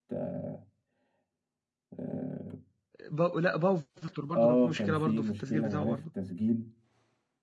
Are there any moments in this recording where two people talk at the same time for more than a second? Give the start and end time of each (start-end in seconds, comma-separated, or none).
4.3-6.0